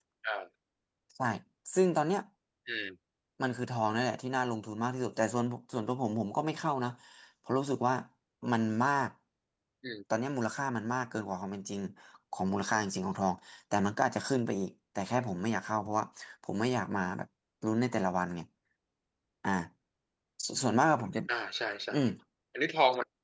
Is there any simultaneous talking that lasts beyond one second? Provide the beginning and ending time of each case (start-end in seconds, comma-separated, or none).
none